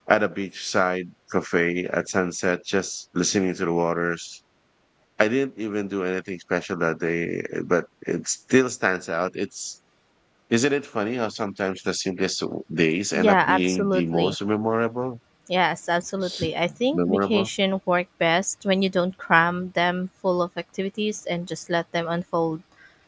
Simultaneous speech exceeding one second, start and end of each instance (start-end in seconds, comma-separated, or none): 13.1-14.3